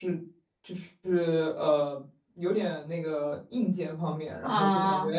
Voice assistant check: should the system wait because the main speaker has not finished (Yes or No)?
Yes